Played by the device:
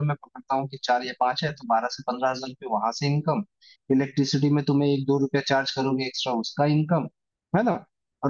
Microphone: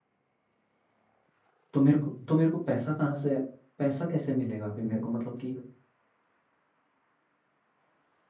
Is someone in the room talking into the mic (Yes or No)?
Yes